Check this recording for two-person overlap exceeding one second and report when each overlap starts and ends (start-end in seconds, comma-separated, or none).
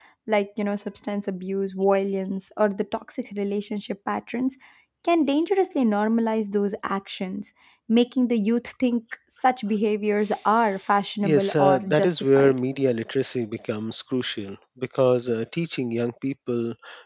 11.2-12.5